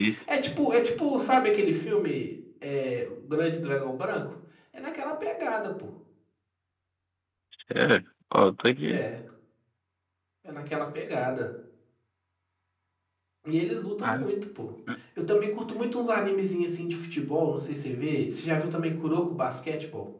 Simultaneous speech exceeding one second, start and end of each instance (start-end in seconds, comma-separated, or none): none